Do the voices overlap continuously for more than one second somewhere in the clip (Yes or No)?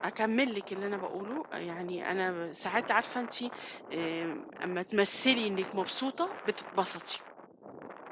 No